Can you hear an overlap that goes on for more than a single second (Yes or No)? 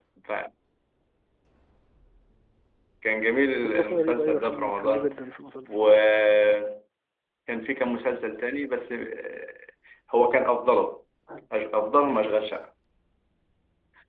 Yes